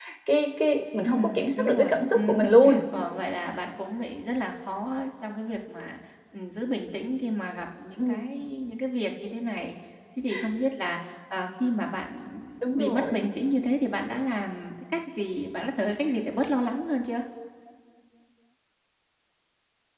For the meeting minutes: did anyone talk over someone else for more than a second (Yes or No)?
Yes